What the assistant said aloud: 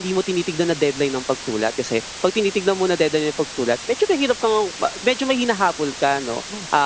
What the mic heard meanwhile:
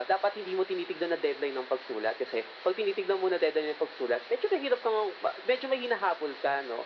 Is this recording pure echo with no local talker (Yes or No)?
Yes